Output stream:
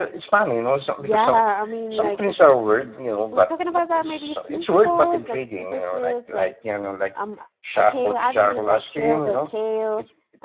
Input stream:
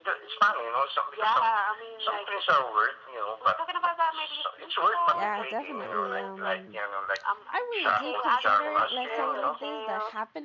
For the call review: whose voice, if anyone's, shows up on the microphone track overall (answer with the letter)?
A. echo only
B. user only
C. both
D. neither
C